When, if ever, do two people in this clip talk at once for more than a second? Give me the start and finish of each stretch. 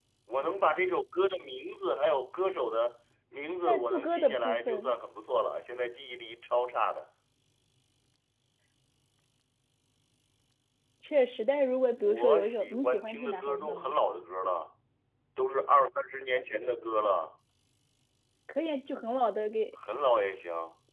3.6-4.9, 12.0-13.9

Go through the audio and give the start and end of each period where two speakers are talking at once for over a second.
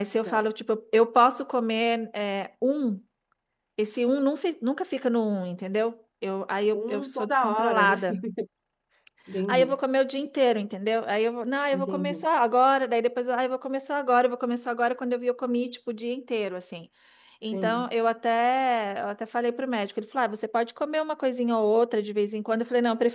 6.7-8.0

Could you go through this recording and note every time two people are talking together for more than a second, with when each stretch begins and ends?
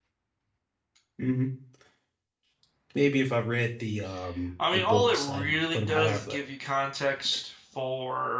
4.7-6.4

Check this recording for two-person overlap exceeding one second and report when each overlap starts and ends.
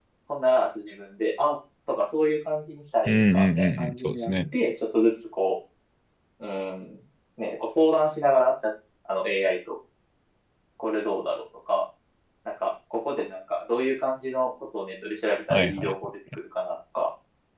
3.0-4.5

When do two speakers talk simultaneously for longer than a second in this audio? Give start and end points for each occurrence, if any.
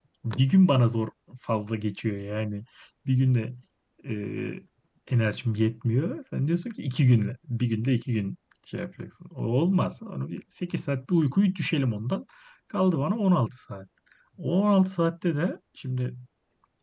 none

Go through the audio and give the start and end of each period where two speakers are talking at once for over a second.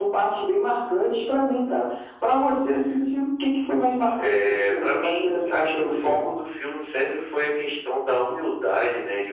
4.2-6.1

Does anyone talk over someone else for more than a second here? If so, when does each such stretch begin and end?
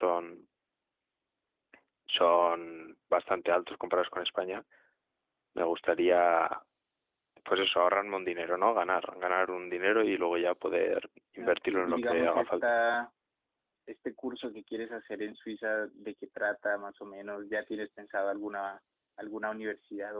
11.4-12.8

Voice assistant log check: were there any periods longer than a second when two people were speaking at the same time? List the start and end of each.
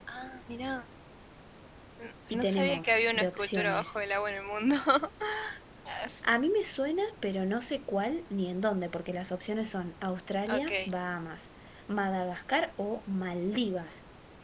2.3-4.0

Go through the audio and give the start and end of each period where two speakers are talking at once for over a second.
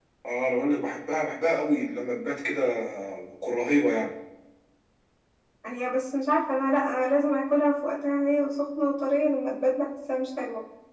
none

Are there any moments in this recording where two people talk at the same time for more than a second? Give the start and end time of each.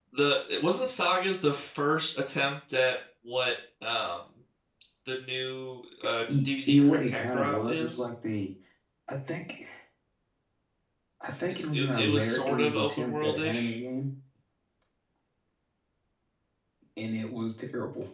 6.4-8.1, 11.5-13.8

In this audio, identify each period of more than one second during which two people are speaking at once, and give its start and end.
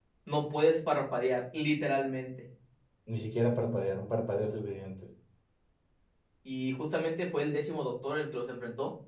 none

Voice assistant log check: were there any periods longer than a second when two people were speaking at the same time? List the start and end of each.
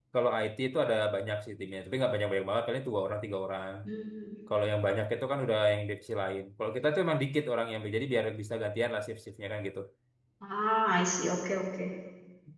none

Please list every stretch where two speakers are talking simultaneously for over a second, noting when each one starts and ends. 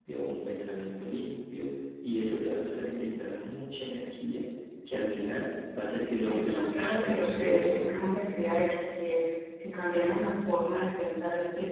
6.2-8.2

